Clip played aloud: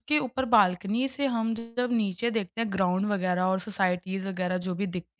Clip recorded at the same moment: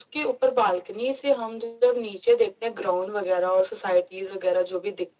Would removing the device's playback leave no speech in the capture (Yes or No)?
Yes